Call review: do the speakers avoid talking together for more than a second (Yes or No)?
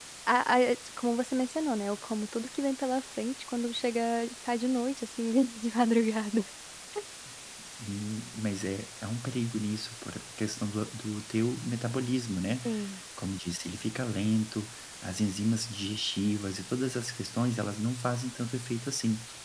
Yes